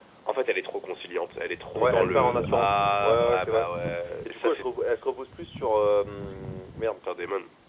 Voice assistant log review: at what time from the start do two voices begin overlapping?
1.8 s

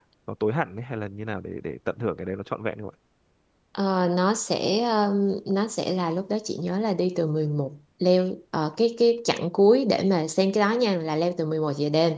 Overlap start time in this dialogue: none

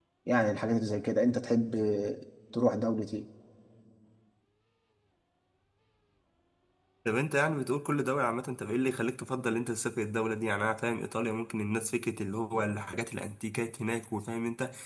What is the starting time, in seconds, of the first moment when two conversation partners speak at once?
none

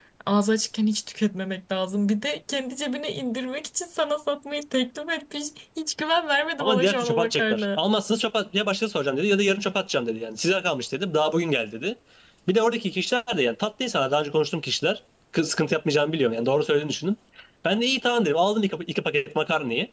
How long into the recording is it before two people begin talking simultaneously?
6.6 s

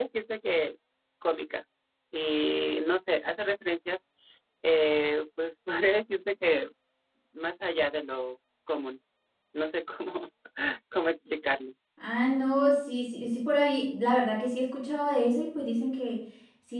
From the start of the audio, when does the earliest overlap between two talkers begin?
none

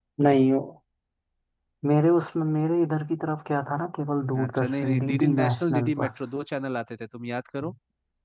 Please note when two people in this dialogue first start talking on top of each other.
4.3 s

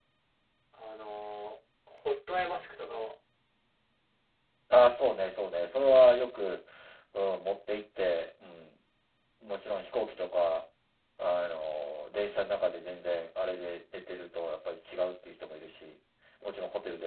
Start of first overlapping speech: none

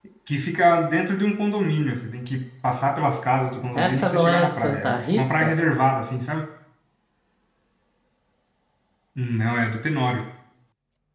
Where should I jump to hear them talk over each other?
3.8 s

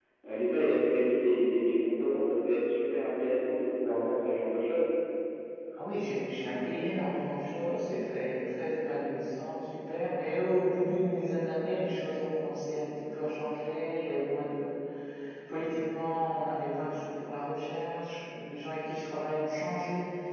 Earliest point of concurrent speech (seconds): none

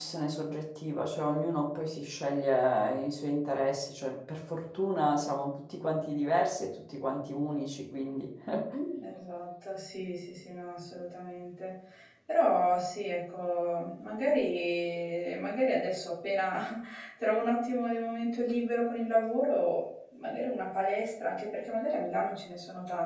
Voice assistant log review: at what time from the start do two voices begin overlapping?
none

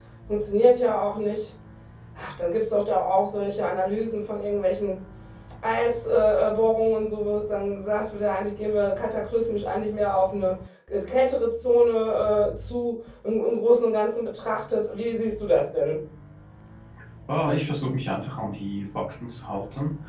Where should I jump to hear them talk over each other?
none

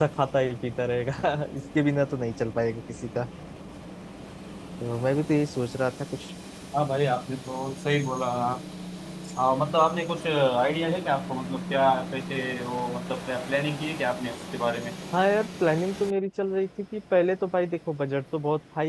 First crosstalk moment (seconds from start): none

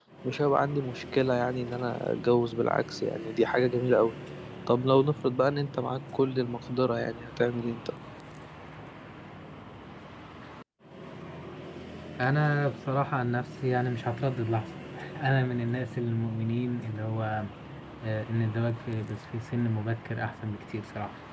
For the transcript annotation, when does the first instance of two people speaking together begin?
none

